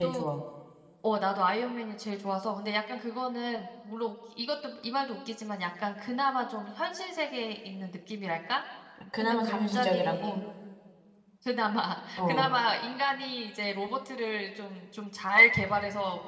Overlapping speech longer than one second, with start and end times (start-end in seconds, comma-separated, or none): 9.2-10.4